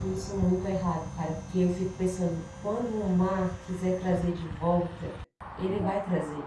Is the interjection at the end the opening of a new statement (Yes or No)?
No